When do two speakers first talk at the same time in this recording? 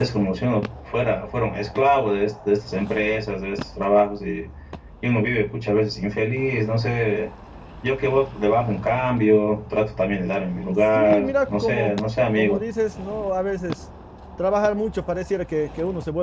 10.6 s

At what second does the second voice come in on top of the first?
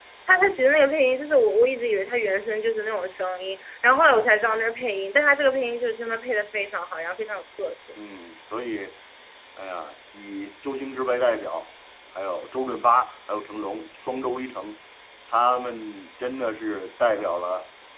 none

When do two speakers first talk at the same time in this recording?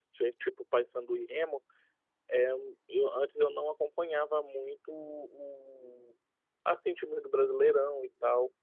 none

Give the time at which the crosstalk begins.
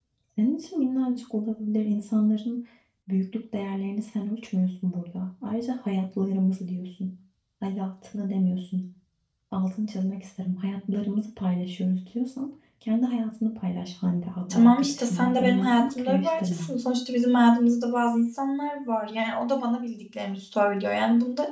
14.5 s

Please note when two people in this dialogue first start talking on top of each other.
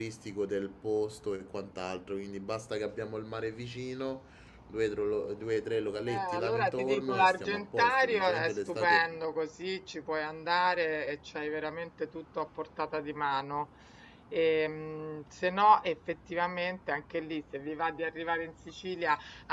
6.1 s

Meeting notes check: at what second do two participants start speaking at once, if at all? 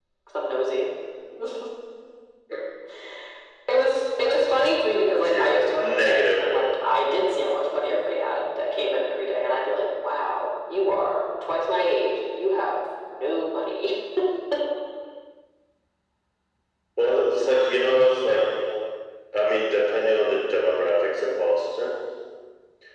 5.1 s

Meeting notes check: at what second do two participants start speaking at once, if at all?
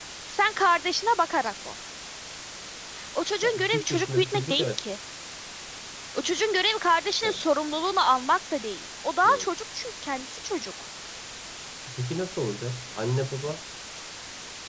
3.4 s

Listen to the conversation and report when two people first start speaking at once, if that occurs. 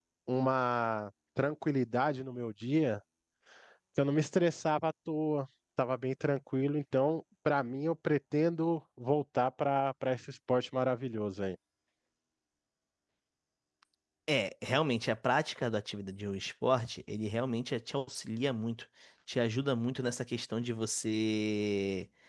none

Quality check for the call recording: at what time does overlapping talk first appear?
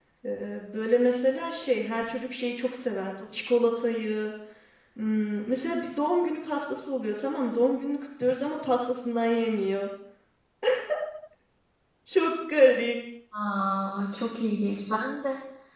none

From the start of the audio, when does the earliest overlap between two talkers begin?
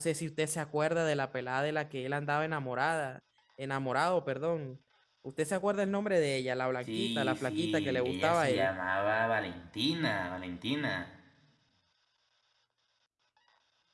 6.8 s

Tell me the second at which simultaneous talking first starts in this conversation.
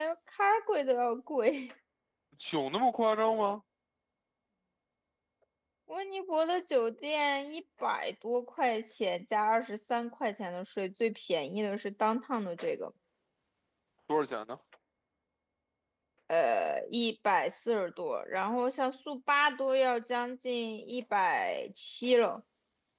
none

